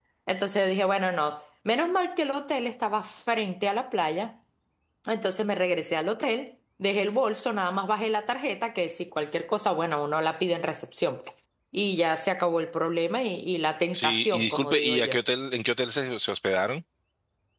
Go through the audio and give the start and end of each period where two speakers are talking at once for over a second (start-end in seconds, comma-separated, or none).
13.9-15.2